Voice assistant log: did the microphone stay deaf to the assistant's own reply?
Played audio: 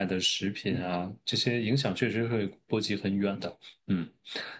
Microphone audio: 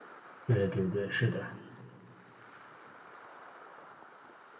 Yes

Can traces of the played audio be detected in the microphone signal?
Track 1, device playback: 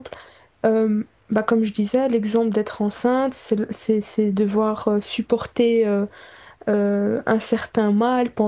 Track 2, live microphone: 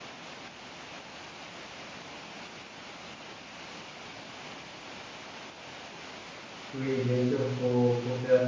No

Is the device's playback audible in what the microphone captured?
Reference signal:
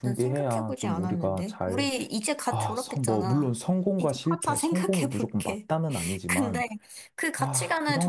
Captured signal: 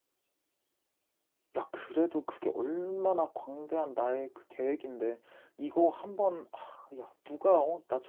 No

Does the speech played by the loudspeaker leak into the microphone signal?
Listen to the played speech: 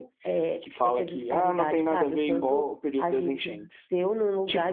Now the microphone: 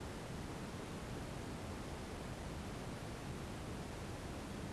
No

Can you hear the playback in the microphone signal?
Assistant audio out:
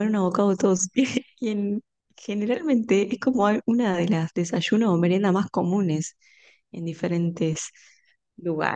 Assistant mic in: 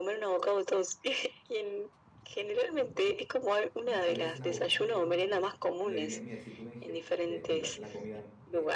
Yes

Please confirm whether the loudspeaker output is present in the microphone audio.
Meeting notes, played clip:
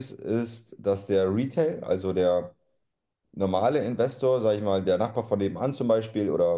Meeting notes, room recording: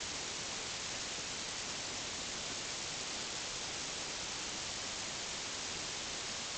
No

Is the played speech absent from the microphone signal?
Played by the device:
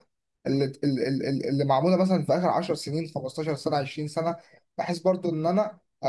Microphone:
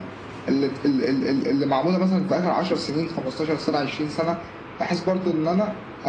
No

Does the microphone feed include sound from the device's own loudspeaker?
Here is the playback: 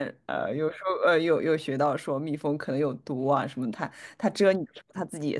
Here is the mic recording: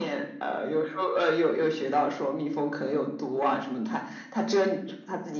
Yes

